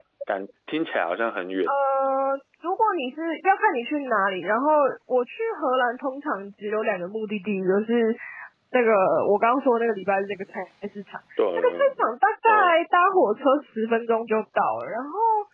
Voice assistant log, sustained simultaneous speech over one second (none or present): none